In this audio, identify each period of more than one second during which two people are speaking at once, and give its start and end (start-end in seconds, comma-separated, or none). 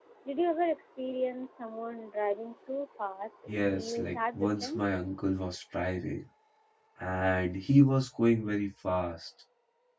3.5-4.8